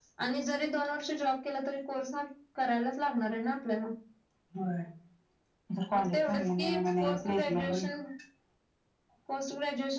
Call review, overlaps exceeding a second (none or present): present